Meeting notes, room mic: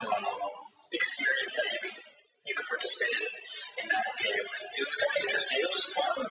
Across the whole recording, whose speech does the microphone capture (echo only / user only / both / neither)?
echo only